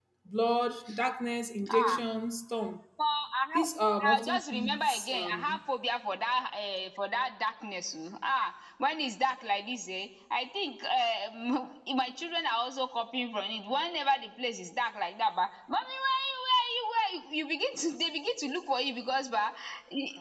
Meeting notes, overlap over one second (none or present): present